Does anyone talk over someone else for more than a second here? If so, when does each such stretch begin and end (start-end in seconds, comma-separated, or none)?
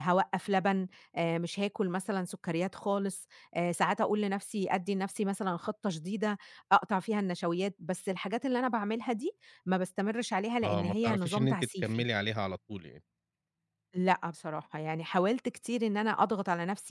10.6-12.0